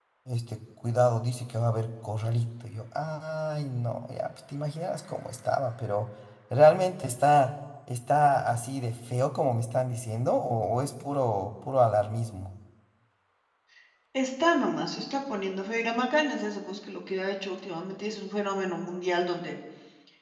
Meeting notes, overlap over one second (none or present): none